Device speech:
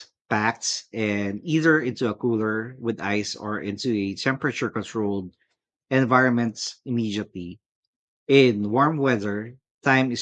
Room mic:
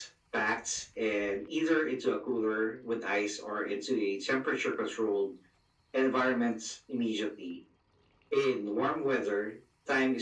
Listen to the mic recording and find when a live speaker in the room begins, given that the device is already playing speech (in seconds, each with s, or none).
none